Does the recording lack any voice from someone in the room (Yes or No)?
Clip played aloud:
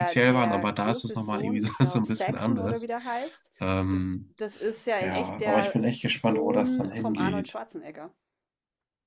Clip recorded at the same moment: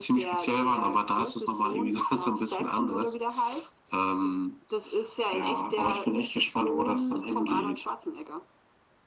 Yes